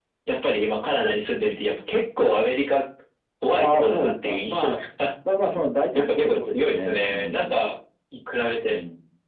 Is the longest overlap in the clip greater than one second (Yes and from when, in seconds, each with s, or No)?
Yes, from 3.5 s